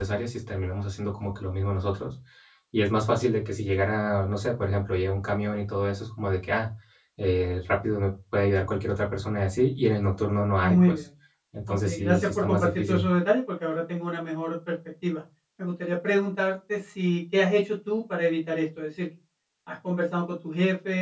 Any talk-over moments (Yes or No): Yes